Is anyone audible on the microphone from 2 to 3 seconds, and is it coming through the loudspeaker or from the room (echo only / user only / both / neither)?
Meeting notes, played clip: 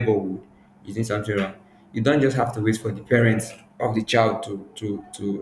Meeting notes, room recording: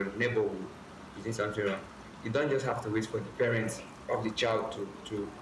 echo only